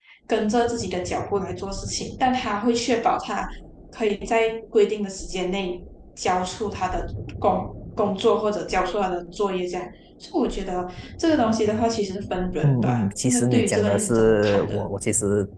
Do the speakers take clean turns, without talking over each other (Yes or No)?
No